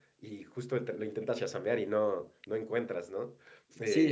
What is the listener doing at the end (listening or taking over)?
taking over